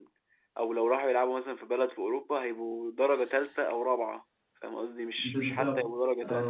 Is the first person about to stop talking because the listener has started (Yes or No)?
Yes